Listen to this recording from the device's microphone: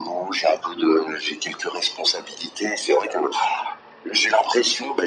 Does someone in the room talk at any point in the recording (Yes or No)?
No